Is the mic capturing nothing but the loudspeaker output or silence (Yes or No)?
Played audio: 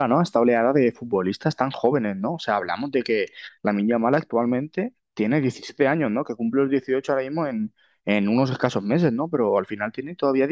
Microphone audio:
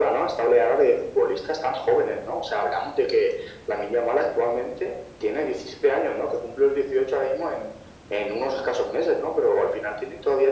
Yes